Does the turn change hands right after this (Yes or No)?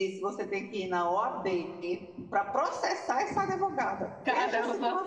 Yes